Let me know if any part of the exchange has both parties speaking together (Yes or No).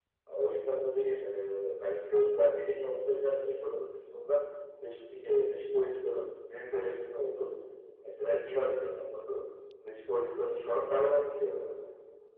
No